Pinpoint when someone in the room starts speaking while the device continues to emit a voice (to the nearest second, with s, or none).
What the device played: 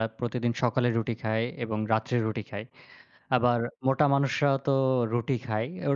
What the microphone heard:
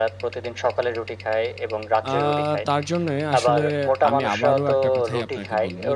2 s